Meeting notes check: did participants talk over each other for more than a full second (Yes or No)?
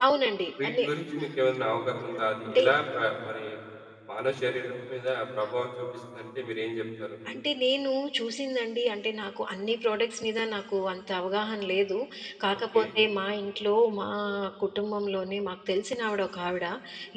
No